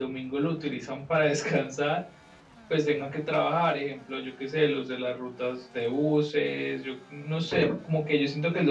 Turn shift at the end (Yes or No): No